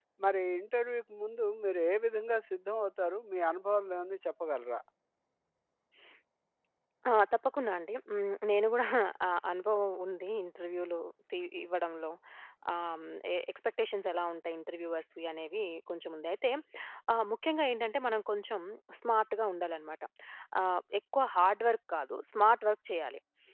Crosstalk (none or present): none